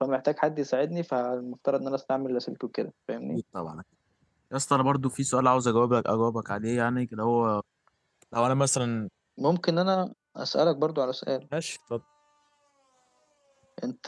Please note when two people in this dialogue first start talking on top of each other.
none

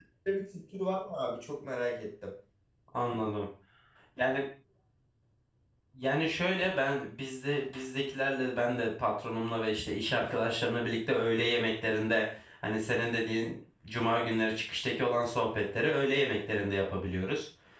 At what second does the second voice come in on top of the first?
none

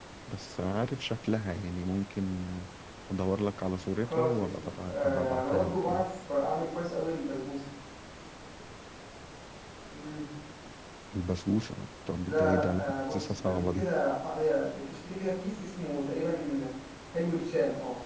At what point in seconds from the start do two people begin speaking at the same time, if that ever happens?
4.0 s

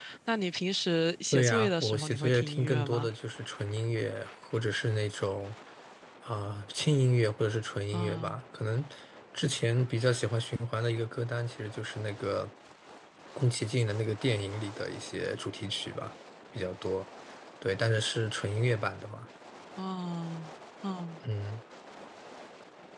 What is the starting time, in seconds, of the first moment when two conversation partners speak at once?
1.3 s

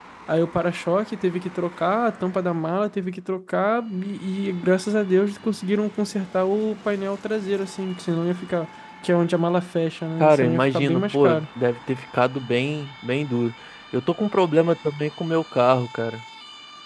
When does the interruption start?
10.2 s

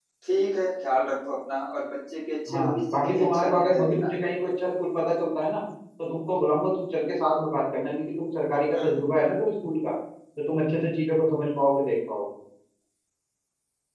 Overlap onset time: 2.5 s

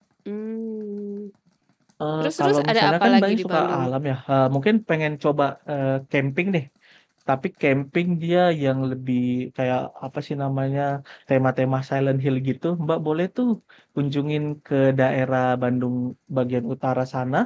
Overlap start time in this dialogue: 2.2 s

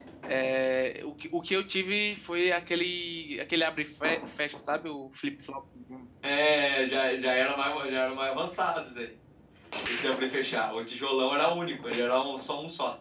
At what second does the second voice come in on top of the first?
none

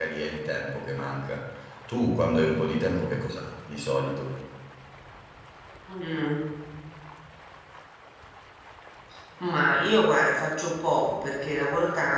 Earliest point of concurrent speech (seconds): none

